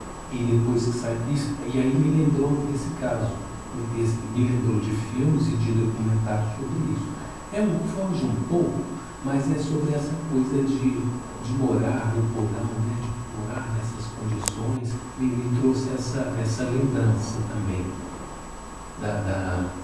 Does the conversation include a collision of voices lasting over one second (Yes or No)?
No